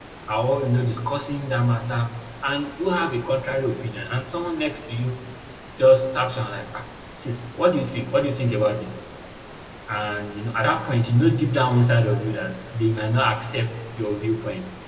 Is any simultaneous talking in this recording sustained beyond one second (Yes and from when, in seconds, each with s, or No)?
No